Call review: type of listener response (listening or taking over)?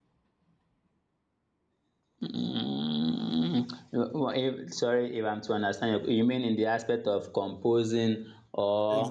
taking over